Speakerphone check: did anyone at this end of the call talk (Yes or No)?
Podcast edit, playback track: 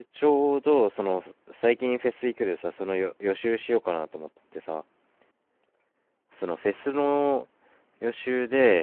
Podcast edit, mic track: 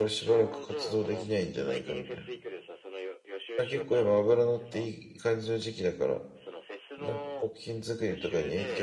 Yes